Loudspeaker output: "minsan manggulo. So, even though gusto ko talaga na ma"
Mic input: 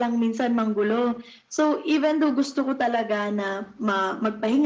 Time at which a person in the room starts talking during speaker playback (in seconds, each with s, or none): none